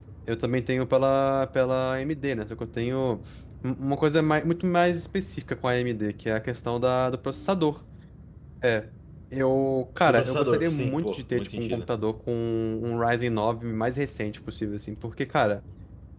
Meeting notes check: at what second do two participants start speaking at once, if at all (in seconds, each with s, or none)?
10.1 s